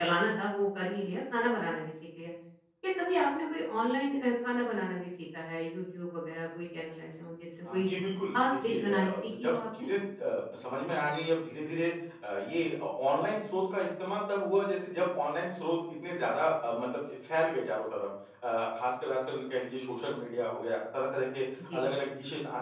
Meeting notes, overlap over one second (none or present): present